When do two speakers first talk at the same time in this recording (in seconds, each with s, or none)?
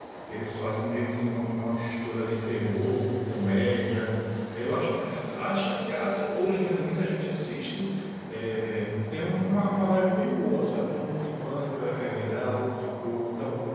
none